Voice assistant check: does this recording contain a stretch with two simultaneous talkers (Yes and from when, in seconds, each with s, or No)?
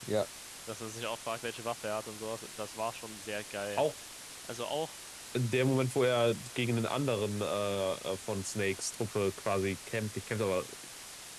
No